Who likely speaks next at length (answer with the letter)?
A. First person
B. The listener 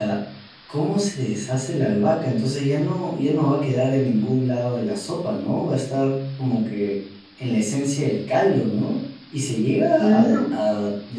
A